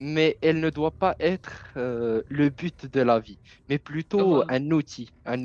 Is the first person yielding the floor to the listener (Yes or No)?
No